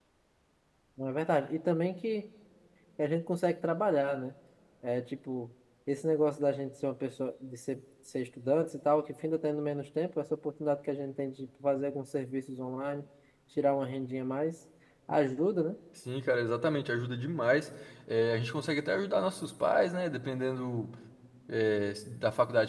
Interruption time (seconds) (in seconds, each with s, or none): none